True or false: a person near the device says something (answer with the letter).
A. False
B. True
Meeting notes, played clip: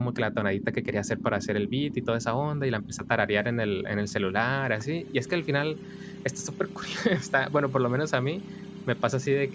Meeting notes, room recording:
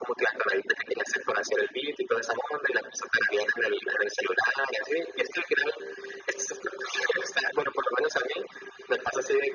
A